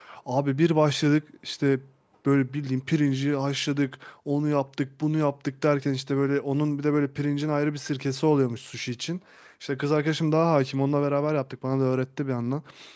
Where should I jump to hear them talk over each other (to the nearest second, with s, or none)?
none